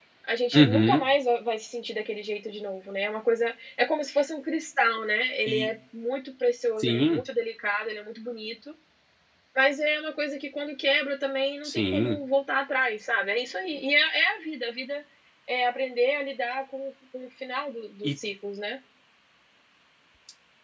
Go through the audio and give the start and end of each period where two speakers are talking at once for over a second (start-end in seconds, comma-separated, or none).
none